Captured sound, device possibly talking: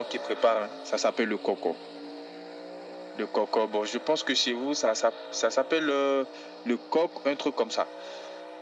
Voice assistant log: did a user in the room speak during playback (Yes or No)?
No